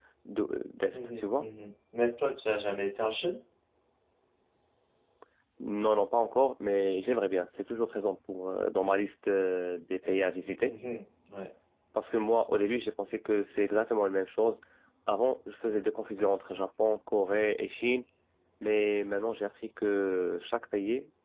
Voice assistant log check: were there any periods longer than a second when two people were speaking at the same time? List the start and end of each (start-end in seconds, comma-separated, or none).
none